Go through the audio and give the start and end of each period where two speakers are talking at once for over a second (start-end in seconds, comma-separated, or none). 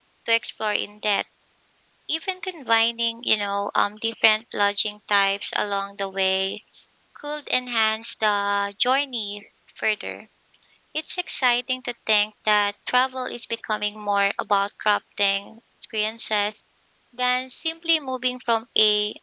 none